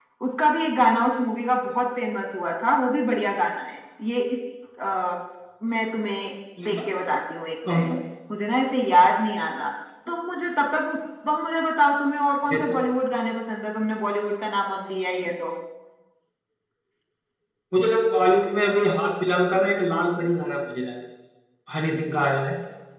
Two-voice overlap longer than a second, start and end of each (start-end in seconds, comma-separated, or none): none